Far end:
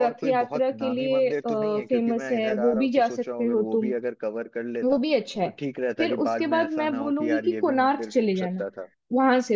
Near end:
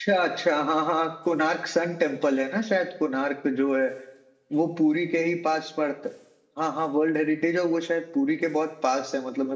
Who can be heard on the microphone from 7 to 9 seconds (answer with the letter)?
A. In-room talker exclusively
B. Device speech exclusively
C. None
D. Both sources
A